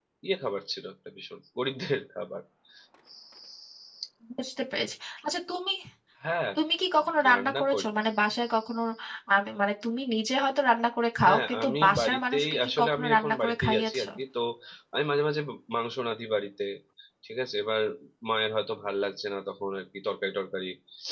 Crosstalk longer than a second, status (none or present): present